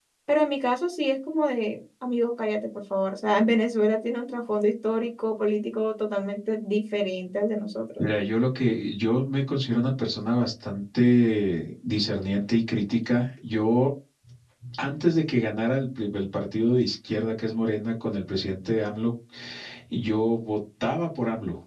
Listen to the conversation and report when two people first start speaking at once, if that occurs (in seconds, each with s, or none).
none